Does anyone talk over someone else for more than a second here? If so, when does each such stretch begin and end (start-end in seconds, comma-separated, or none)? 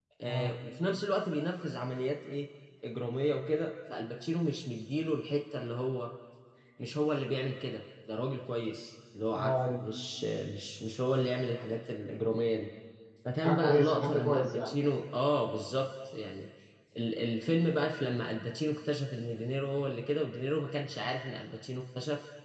13.4-14.8